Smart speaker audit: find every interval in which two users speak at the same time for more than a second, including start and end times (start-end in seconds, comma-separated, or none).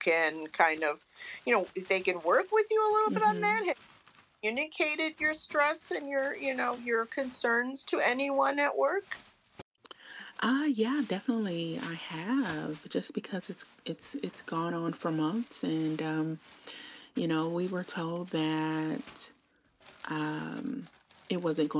none